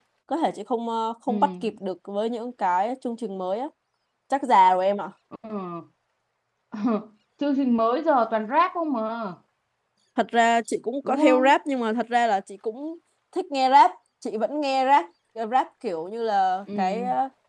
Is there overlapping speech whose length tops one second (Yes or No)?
No